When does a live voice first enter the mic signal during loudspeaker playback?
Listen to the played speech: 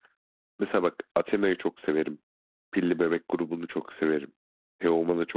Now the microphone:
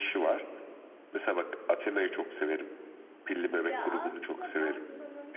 3.7 s

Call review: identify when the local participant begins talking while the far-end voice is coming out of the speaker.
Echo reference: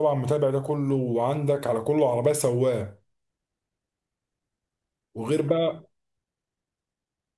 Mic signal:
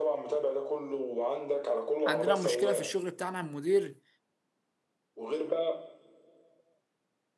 2.1 s

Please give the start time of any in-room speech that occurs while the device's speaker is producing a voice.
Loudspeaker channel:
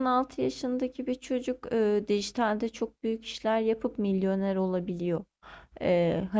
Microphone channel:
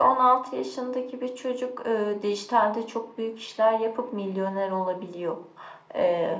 none

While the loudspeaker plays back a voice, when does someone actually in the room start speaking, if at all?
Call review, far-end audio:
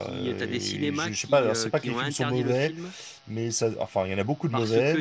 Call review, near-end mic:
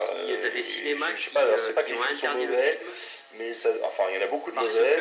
none

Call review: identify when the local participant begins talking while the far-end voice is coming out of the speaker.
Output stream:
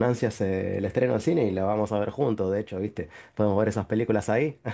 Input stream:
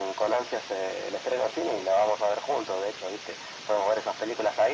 none

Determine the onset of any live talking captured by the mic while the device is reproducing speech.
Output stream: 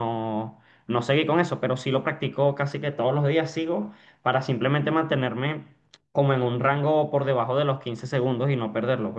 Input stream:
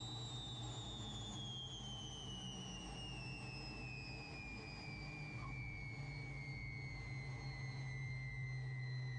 none

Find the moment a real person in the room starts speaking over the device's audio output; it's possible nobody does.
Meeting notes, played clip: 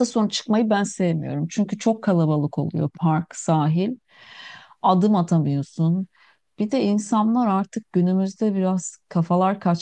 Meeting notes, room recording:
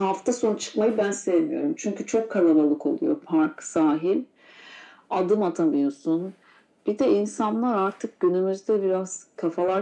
none

